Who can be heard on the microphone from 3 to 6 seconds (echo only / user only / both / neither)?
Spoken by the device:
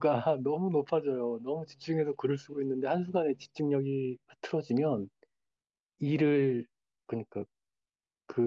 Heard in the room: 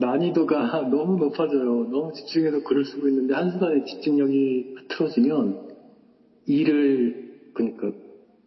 echo only